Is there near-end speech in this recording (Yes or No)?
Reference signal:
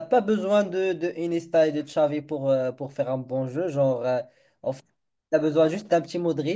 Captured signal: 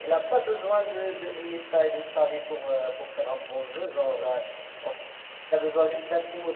No